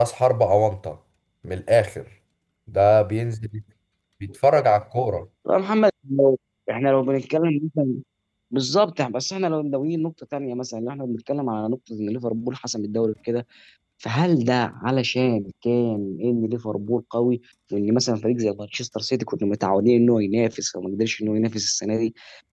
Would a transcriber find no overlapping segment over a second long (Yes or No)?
Yes